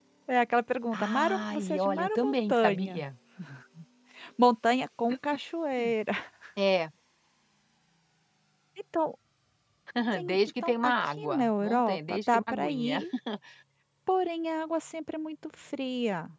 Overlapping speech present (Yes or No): Yes